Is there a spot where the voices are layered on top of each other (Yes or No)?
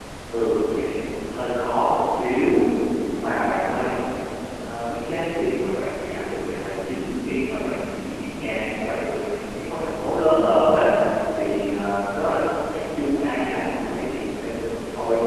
No